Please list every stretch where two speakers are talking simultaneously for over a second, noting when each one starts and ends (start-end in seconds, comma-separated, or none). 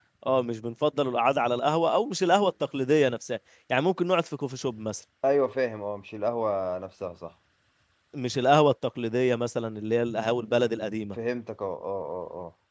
none